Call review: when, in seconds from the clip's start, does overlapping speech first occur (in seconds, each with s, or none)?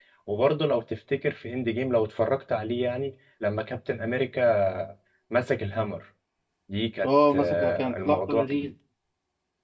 7.0 s